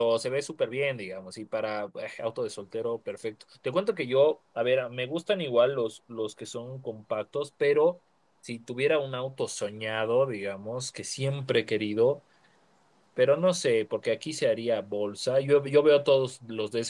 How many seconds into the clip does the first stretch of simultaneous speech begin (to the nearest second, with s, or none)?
none